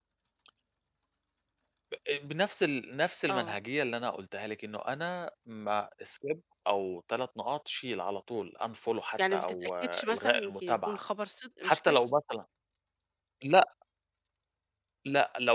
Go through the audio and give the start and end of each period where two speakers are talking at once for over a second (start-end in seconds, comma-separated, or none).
9.3-11.0